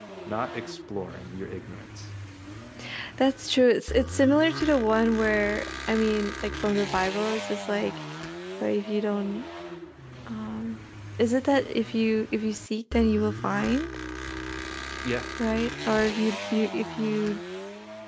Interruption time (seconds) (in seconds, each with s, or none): none